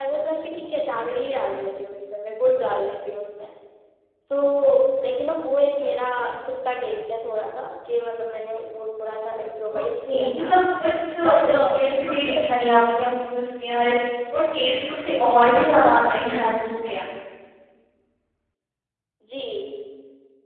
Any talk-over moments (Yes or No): Yes